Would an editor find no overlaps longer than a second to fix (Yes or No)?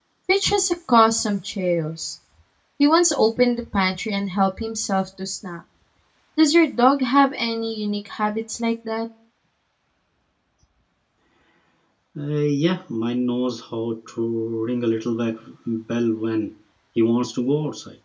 Yes